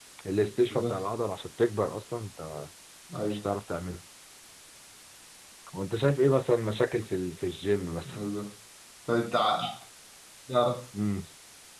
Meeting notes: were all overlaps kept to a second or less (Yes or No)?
Yes